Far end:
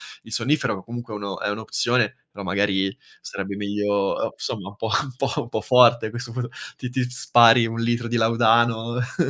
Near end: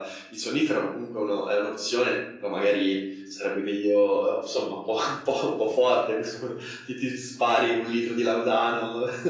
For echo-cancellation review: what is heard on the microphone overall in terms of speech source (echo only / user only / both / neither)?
echo only